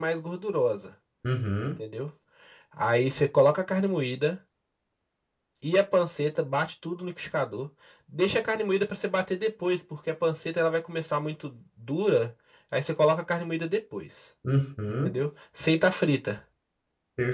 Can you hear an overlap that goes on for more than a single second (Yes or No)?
No